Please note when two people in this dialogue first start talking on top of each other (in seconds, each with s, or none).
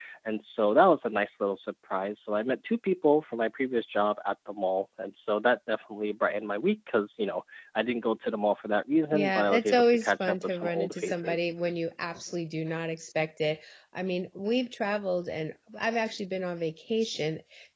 9.1 s